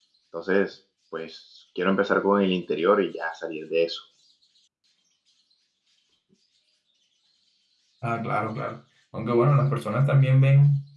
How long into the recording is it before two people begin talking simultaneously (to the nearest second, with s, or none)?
none